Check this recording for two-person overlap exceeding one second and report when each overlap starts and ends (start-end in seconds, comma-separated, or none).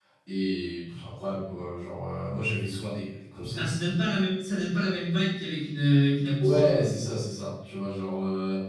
none